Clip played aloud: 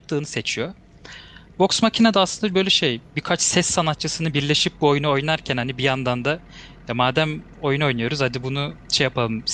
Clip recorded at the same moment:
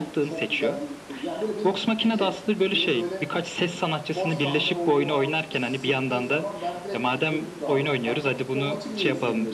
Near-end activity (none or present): present